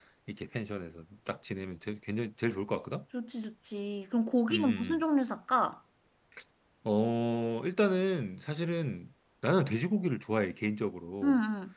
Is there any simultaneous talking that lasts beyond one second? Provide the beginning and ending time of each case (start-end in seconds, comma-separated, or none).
none